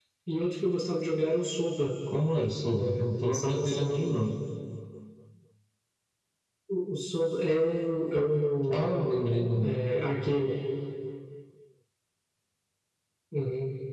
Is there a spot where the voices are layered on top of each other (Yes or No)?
Yes